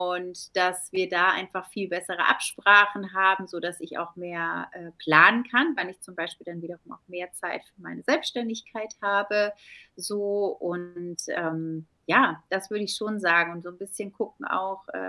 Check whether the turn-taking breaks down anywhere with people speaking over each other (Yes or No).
No